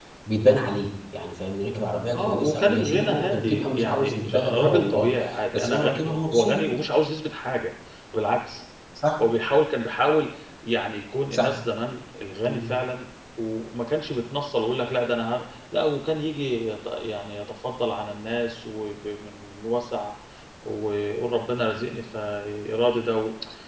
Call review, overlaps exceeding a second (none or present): present